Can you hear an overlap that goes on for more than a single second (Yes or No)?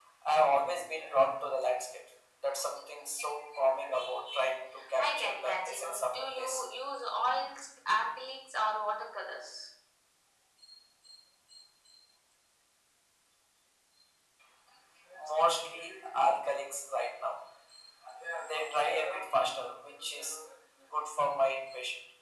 Yes